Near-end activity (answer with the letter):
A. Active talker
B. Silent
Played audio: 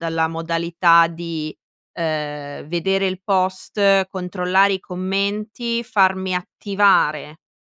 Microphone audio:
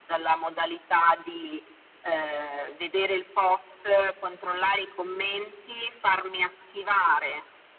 B